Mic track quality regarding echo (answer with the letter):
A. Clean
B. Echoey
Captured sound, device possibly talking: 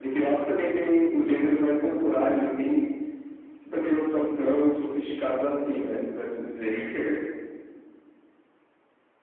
B